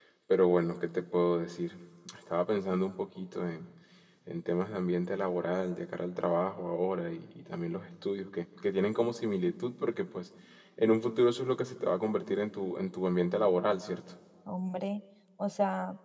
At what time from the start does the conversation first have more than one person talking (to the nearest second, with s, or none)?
none